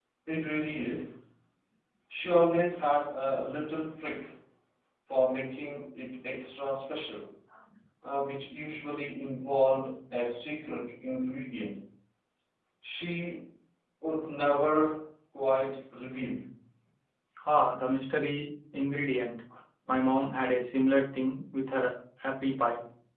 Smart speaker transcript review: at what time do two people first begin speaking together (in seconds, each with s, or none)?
none